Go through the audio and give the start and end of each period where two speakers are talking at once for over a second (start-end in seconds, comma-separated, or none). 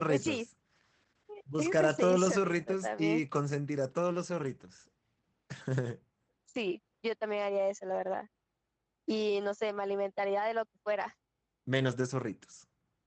1.8-3.2